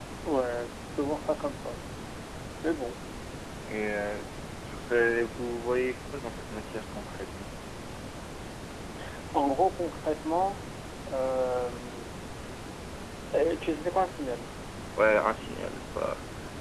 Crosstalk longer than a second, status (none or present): none